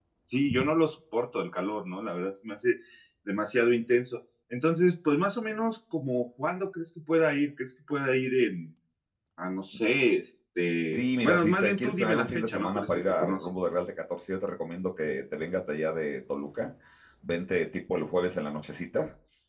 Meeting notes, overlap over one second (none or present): present